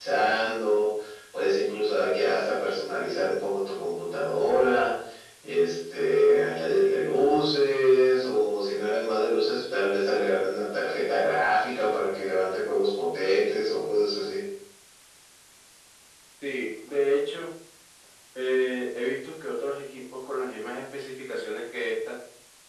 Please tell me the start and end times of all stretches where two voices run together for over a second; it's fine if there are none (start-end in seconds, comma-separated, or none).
none